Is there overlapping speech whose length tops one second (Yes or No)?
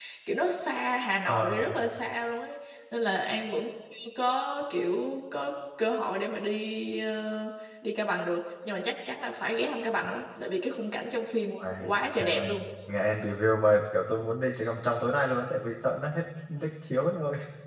No